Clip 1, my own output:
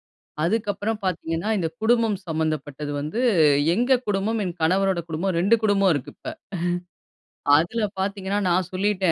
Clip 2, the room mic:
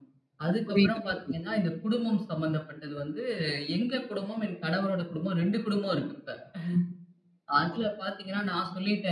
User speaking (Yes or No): Yes